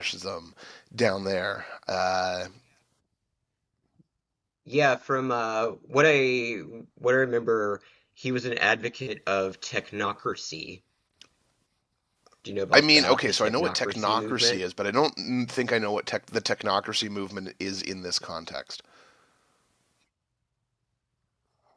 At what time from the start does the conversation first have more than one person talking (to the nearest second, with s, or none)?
13 s